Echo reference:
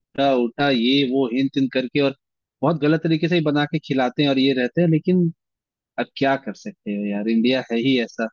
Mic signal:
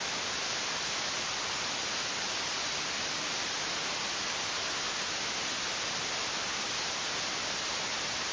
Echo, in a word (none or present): none